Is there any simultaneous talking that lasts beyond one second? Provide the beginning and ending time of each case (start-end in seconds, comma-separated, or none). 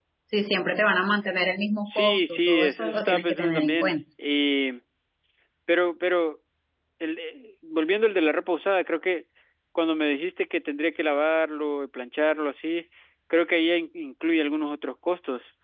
1.9-4.0